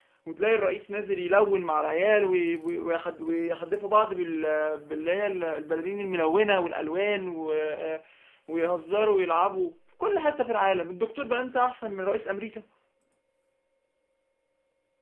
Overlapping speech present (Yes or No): No